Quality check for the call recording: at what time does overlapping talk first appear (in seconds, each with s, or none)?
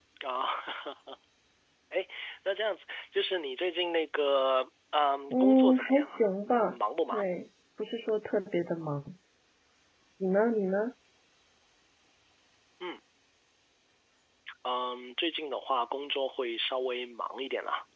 5.3 s